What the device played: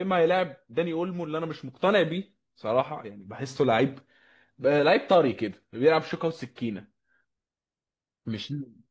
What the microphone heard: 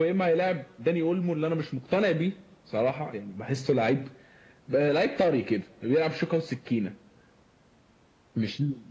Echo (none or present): present